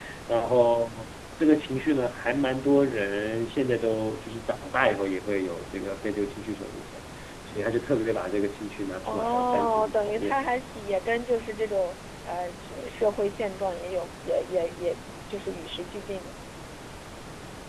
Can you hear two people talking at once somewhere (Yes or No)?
Yes